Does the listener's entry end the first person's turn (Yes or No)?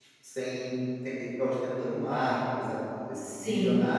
No